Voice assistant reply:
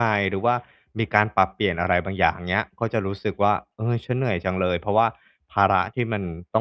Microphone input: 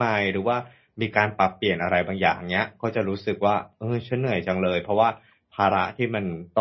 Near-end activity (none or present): none